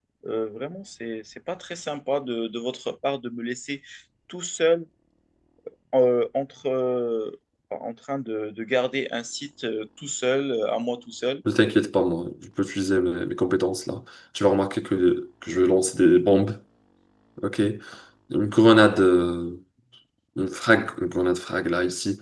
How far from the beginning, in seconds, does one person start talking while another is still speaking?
none

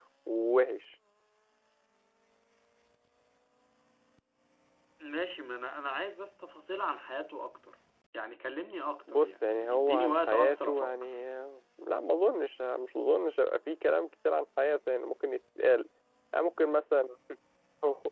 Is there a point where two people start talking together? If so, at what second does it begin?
9.1 s

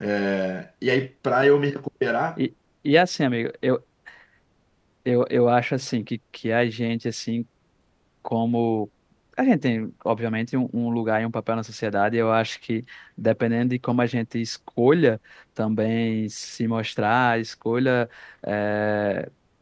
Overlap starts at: none

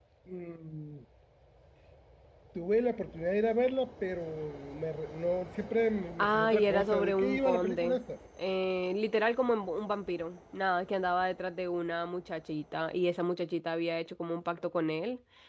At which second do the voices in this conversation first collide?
6.2 s

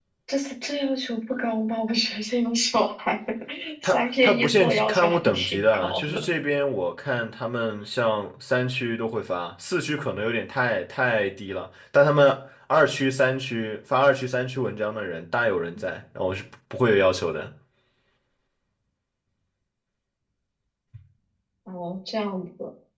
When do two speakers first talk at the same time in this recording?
3.8 s

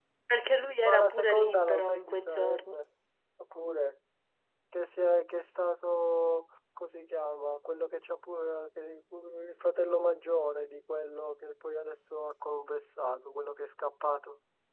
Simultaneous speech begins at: 0.8 s

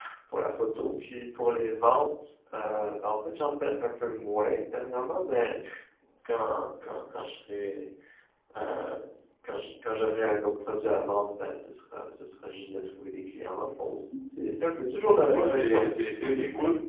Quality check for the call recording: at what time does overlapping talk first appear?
15.2 s

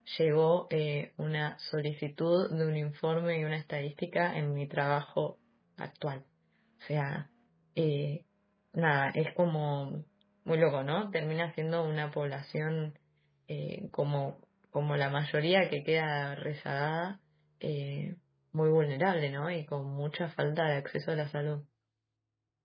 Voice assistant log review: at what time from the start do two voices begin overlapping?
none

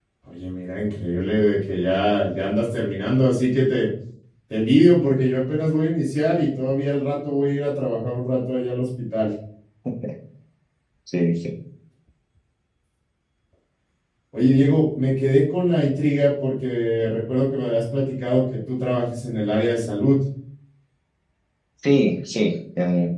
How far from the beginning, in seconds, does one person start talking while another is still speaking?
none

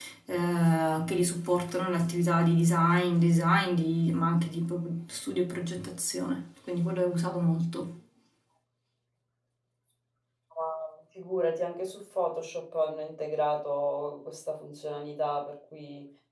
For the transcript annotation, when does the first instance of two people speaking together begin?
none

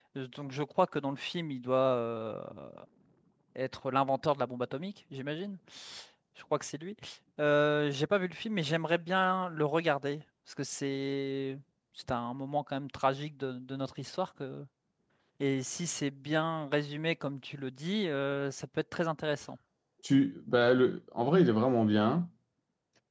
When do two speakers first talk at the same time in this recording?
none

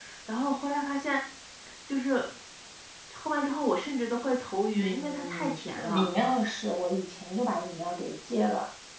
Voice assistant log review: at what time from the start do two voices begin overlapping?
4.7 s

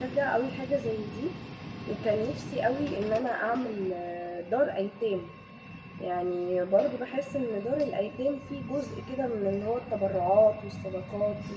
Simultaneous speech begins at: none

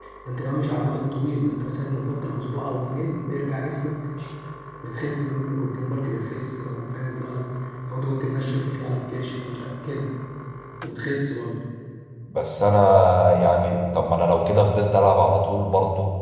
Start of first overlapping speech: none

